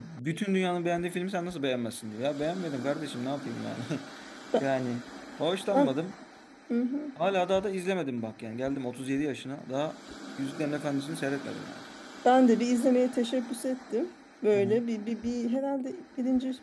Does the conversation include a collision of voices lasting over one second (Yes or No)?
No